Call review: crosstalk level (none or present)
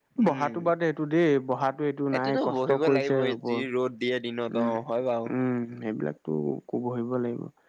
present